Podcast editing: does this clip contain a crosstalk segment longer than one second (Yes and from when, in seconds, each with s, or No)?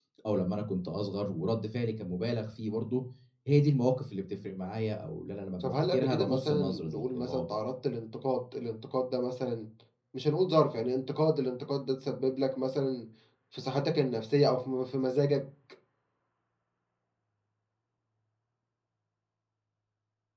Yes, from 5.6 s